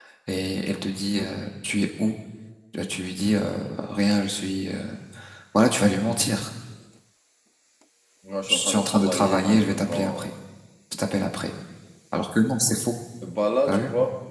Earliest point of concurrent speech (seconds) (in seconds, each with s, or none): 8.5 s